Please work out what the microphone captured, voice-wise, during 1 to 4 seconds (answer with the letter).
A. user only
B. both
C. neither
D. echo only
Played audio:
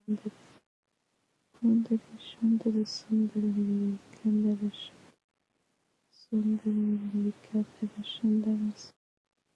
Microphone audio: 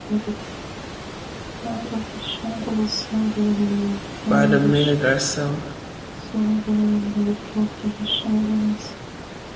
D